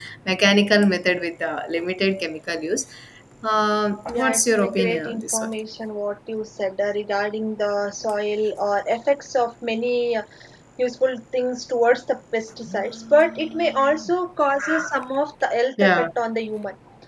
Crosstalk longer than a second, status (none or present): present